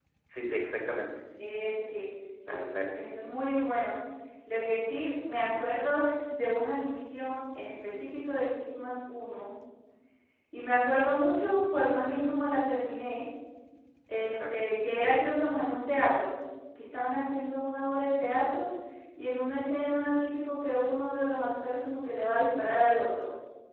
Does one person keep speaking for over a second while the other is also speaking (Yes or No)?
No